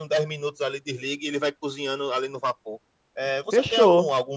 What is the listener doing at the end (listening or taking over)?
listening